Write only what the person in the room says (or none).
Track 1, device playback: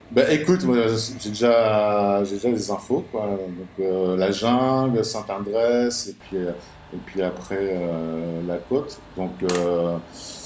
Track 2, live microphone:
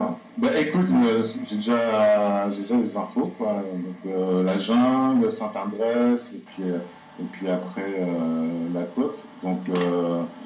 none